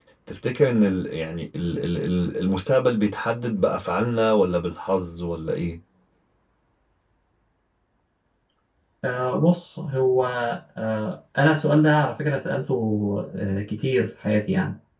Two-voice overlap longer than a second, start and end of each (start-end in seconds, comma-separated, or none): none